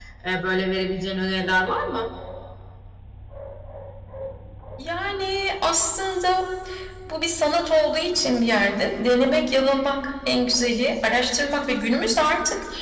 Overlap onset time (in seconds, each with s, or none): none